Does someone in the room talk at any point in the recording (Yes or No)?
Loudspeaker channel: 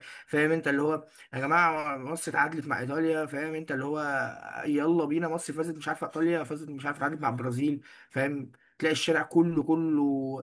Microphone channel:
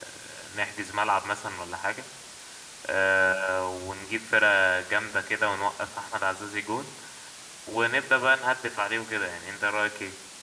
Yes